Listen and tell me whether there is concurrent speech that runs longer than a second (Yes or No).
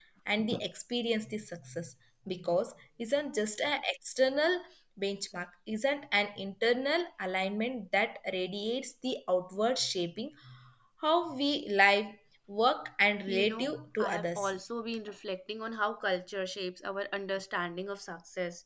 Yes